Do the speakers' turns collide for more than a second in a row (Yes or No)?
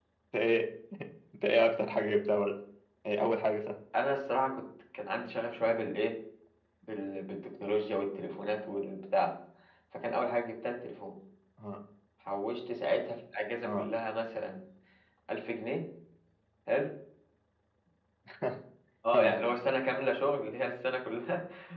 No